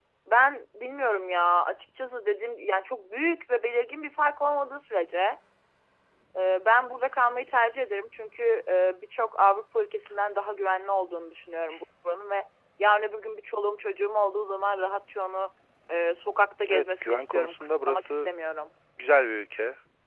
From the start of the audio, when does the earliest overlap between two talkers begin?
17 s

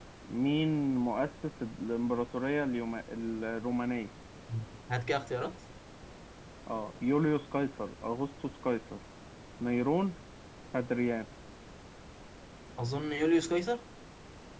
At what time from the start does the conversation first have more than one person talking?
none

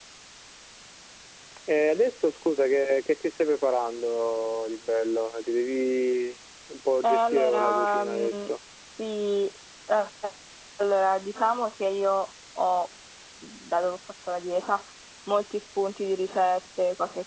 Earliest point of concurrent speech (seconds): 7 s

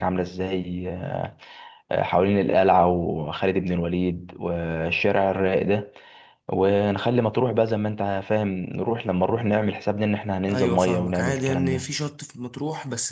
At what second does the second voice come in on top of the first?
10 s

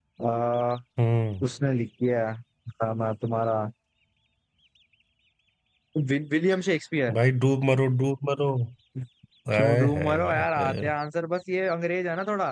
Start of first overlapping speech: 10 s

